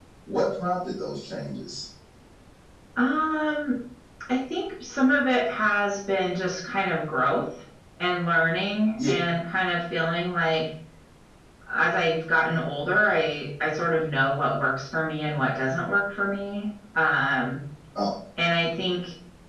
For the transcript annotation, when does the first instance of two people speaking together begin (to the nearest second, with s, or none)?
none